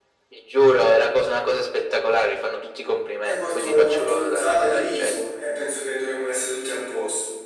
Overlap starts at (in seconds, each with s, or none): 3.2 s